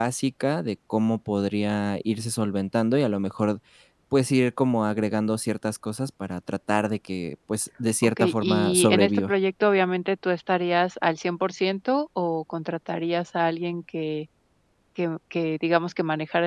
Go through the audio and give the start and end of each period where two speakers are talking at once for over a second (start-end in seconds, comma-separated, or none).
8.0-9.3